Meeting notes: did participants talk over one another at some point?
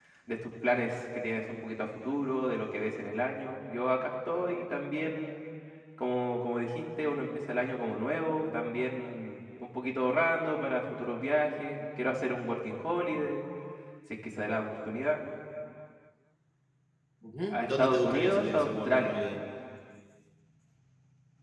Yes, from 17.5 s

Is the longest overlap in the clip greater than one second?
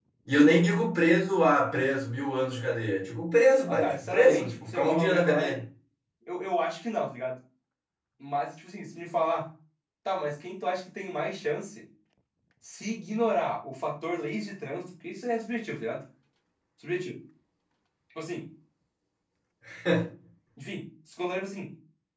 Yes, from 3.7 s

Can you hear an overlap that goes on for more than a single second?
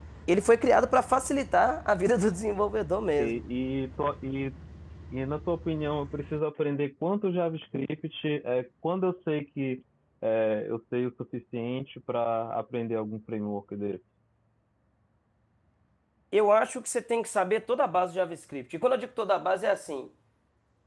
No

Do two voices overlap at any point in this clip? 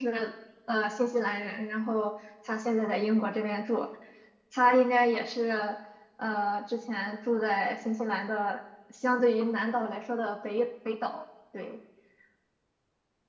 No

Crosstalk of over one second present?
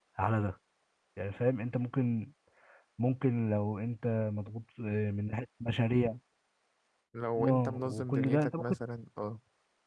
Yes, from 7.4 s

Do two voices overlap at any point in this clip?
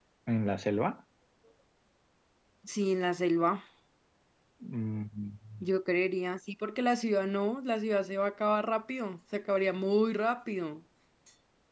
No

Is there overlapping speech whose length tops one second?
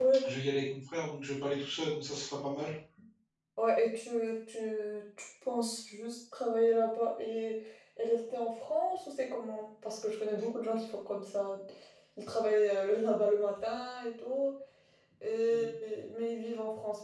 No

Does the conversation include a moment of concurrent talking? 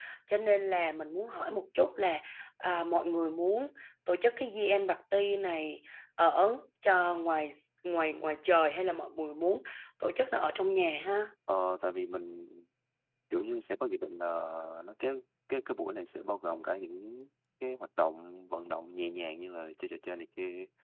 No

